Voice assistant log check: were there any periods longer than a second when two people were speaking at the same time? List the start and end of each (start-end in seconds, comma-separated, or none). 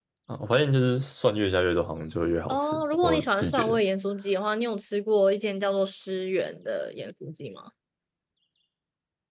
2.5-3.8